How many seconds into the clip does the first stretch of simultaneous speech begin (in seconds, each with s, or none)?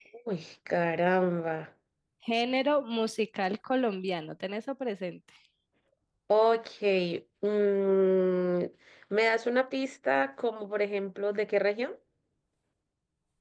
none